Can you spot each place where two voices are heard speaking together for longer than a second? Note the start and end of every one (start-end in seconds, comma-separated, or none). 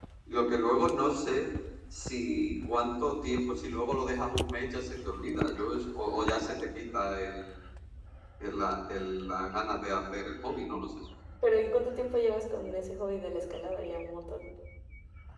none